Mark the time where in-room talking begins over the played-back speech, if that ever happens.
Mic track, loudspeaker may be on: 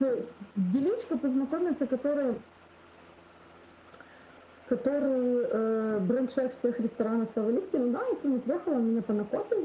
none

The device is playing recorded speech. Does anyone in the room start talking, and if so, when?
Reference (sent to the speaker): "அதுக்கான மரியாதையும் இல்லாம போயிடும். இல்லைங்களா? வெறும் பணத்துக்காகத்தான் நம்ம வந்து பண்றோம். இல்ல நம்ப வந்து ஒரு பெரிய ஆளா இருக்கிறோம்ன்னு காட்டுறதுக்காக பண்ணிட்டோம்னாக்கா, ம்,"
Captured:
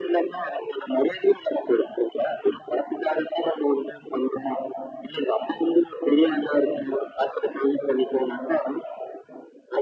none

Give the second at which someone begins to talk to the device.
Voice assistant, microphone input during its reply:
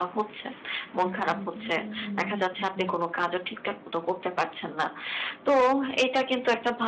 1.0 s

